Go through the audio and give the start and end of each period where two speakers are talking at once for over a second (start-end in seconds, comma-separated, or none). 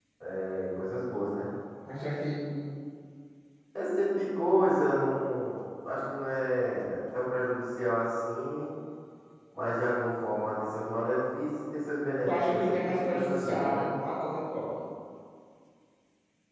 12.3-13.9